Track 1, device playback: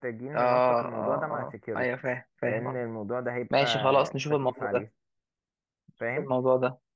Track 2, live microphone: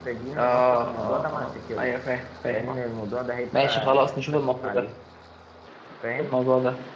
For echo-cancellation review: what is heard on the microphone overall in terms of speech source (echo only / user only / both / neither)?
echo only